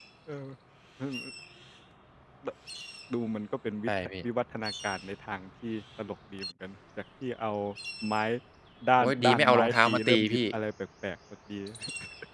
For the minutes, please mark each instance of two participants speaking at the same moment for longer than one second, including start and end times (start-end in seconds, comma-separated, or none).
9.0-10.4